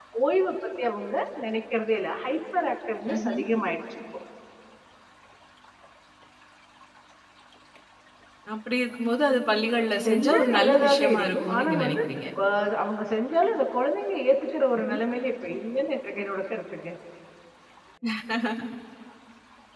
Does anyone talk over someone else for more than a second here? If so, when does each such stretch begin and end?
10.1-12.0

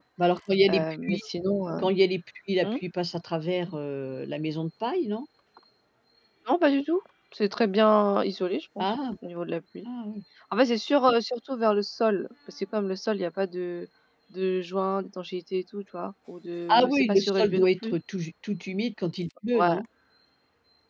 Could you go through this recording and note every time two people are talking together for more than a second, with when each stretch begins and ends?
16.7-17.9

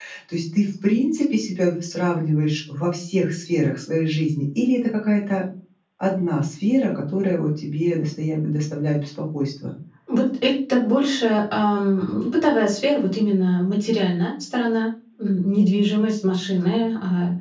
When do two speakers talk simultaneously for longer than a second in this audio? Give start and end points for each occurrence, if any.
none

